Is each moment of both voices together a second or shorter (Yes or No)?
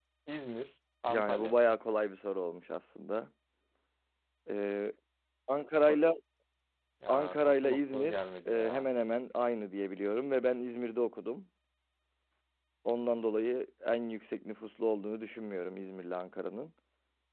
No